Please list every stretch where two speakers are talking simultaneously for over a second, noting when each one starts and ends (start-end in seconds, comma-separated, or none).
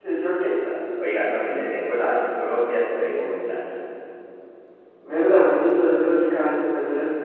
none